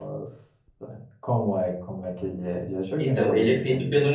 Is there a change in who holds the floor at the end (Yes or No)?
Yes